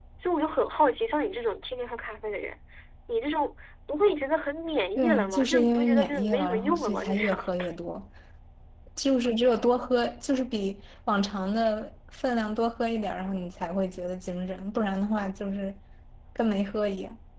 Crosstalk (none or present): present